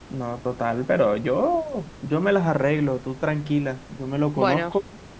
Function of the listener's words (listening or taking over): listening